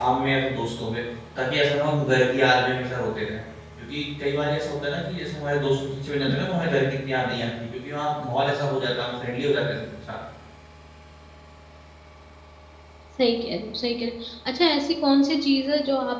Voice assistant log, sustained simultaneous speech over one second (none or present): none